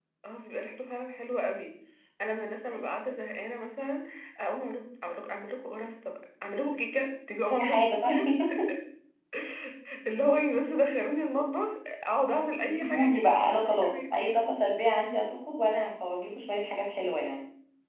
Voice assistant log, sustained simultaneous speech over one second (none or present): present